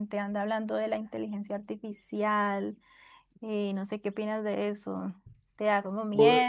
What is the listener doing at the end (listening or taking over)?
listening